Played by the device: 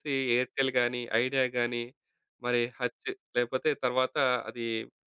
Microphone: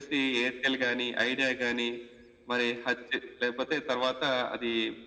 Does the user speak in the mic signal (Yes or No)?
No